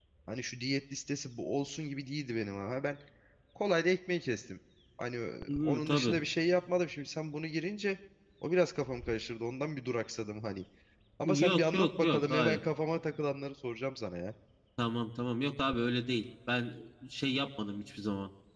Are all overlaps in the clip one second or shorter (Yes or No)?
No